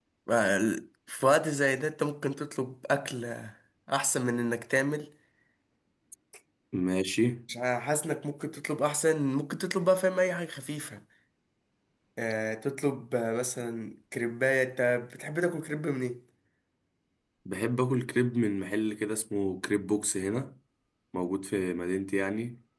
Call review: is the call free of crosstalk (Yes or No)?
Yes